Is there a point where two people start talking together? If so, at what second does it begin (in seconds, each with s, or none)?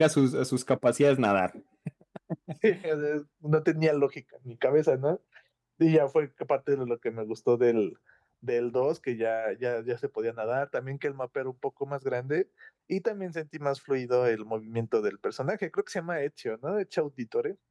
none